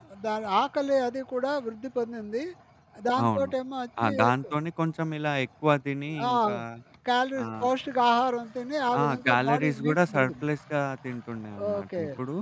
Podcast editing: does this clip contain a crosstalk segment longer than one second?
Yes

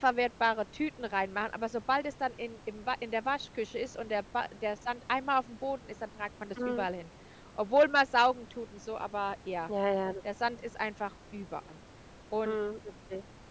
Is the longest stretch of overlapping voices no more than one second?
Yes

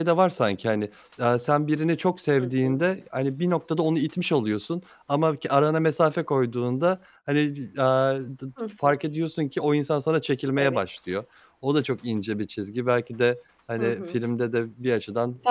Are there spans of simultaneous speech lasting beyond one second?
No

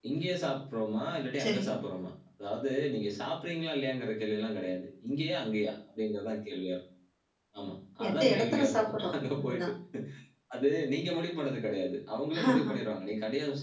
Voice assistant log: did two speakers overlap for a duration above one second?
Yes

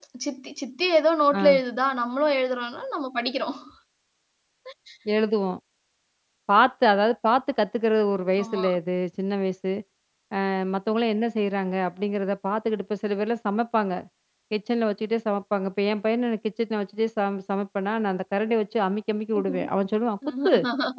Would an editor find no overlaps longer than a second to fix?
Yes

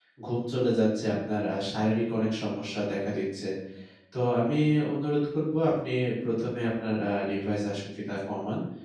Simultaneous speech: No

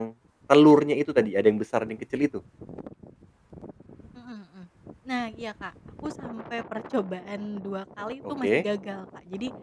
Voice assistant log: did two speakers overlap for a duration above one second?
No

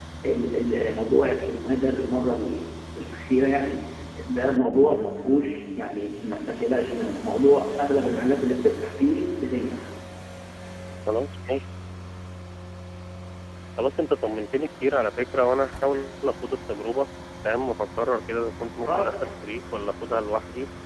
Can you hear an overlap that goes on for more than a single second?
No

